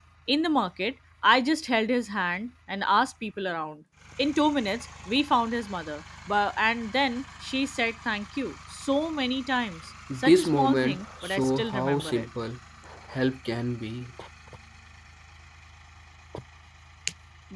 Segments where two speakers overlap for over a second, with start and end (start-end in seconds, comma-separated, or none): 10.2-12.3